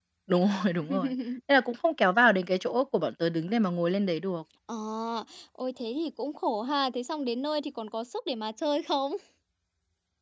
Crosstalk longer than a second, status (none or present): none